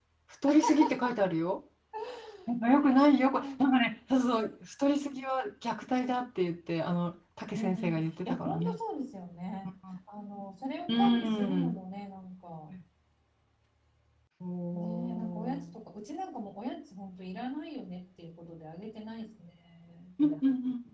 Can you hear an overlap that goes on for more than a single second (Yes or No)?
Yes